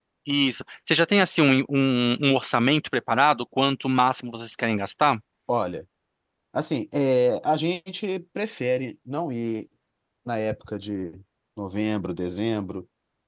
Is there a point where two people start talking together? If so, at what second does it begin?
none

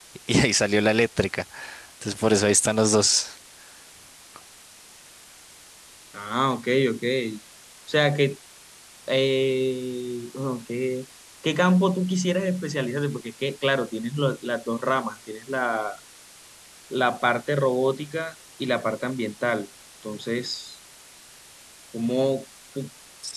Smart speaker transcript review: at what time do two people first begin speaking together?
none

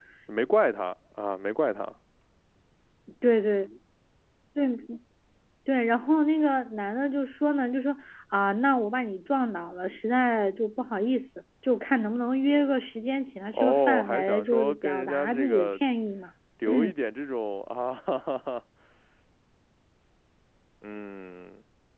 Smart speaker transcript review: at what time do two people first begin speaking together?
14 s

